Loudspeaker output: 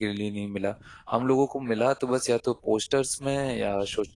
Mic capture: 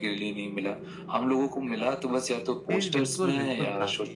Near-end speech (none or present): present